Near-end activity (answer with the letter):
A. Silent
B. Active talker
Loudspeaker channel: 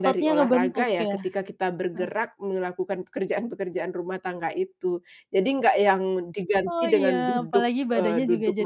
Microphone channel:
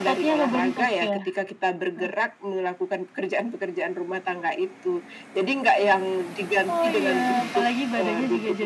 A